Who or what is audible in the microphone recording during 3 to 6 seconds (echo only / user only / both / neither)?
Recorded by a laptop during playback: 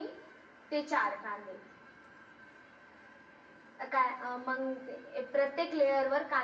echo only